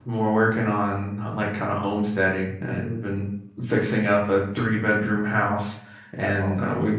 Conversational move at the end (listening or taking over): listening